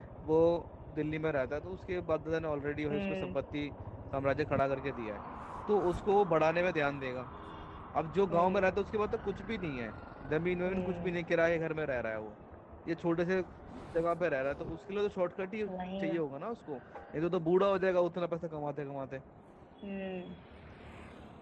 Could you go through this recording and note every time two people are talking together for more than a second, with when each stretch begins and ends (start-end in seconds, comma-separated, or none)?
none